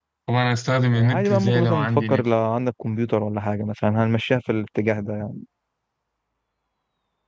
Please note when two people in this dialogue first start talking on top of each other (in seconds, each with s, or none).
0.9 s